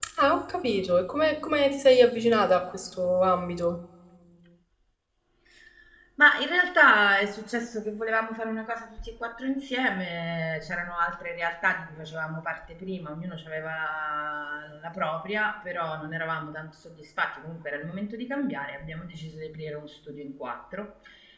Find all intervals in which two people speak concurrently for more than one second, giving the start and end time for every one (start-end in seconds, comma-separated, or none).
none